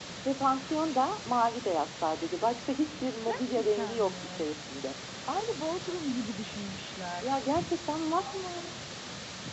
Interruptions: present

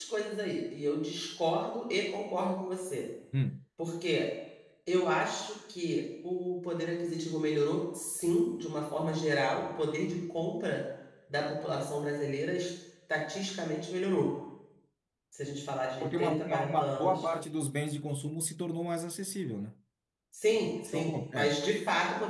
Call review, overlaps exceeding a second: present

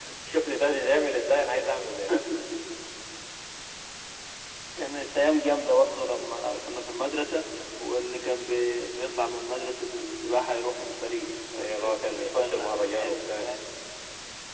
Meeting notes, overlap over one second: present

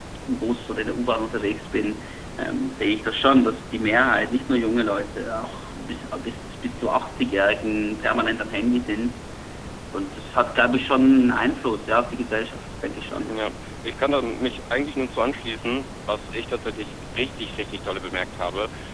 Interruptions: none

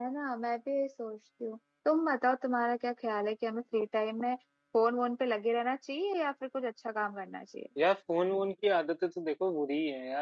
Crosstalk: none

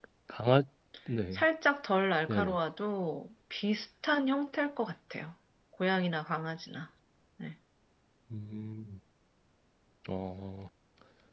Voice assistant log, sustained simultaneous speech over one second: none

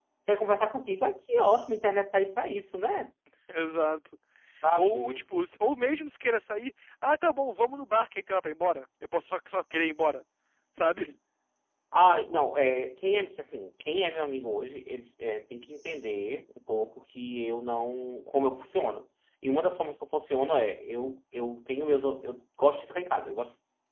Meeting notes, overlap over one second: none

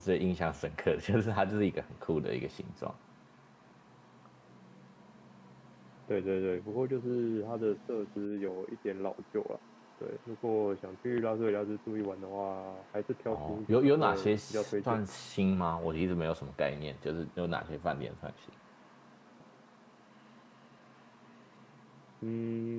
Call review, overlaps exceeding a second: present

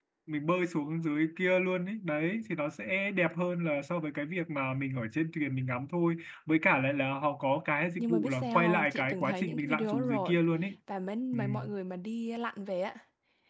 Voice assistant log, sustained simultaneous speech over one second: present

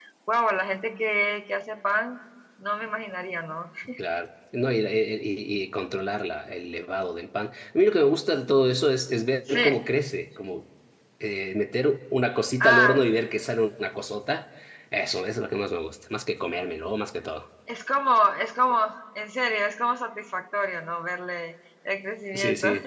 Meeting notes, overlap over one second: none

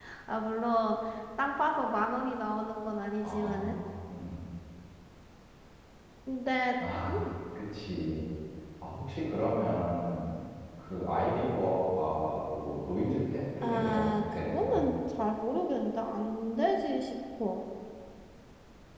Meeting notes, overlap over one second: present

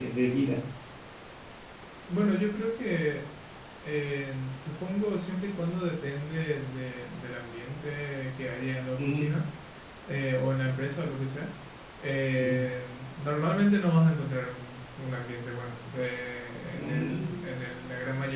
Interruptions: present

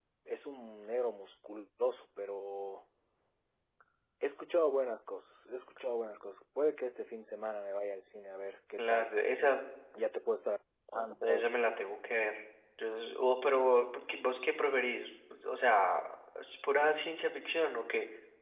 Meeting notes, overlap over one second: none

